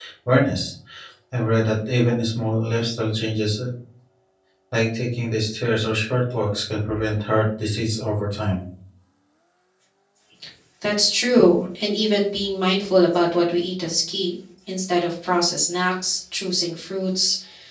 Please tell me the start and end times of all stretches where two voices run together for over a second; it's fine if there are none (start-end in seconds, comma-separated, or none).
none